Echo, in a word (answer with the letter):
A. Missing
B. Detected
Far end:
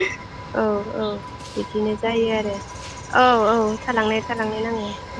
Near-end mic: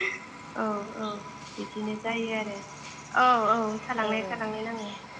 B